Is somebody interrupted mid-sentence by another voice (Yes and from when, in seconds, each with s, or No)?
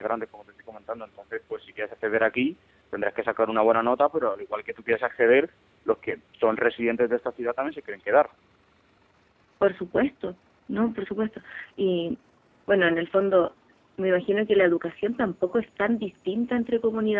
No